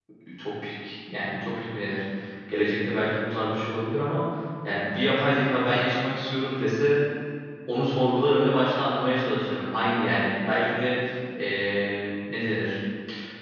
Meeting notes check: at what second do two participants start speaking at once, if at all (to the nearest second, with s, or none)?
none